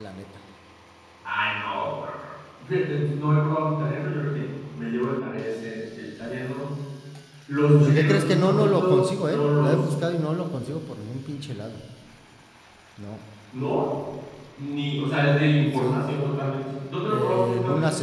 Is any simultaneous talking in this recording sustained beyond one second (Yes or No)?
Yes